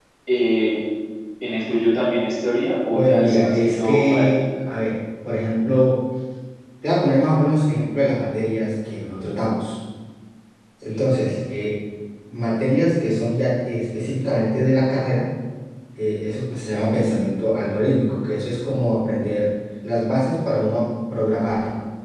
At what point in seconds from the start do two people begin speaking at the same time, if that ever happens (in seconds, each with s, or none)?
2.9 s